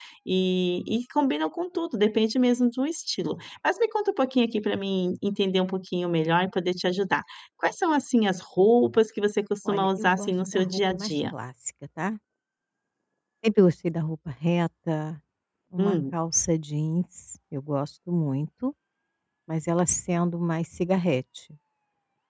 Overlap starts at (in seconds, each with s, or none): 9.6 s